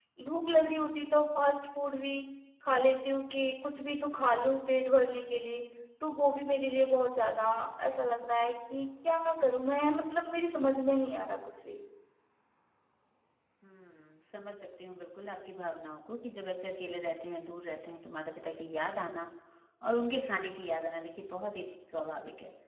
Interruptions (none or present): none